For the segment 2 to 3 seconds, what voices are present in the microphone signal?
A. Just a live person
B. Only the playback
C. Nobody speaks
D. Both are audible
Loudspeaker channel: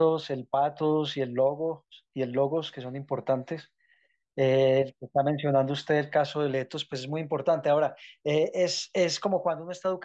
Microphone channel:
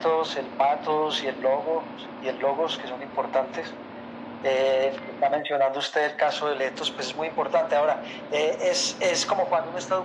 B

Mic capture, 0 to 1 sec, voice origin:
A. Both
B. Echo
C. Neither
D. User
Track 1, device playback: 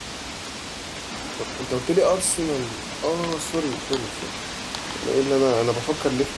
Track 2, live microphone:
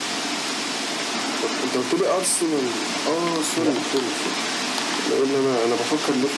C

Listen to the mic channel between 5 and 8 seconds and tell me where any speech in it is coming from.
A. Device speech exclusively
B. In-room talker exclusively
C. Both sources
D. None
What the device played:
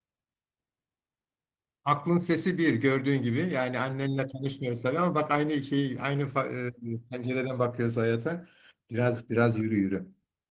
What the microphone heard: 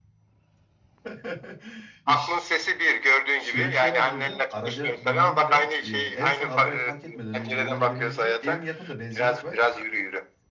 C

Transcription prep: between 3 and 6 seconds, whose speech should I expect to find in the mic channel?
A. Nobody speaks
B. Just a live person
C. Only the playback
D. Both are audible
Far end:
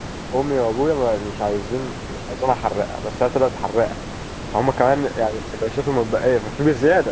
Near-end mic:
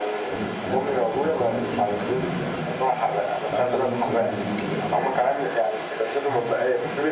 D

